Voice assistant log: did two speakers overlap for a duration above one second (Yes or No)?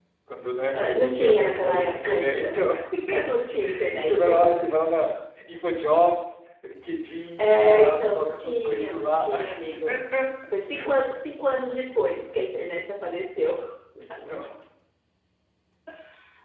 Yes